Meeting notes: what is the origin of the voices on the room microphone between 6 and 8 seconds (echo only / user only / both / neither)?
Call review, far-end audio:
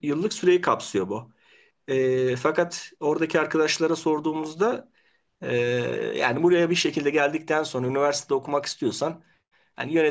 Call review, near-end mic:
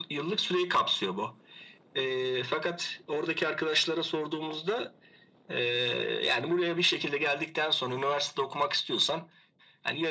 echo only